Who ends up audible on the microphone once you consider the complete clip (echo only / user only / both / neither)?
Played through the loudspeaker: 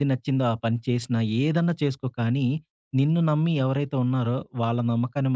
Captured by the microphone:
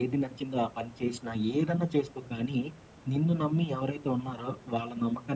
echo only